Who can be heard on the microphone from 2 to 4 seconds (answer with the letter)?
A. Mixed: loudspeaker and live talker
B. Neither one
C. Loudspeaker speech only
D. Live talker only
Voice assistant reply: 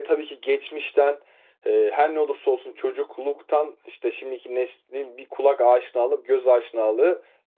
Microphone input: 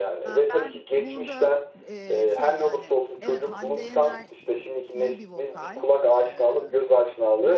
A